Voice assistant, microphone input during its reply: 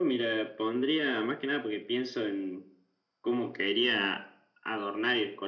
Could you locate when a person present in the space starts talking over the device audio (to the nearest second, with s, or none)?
none